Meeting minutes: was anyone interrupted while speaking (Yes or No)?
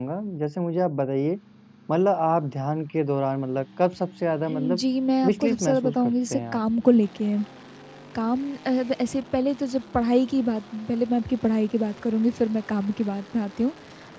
Yes